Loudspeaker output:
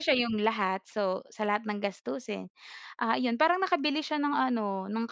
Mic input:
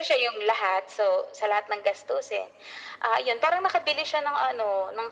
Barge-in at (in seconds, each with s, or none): none